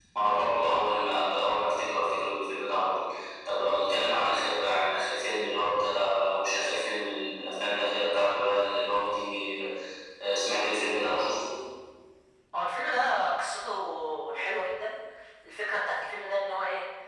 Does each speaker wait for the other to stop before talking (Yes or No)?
Yes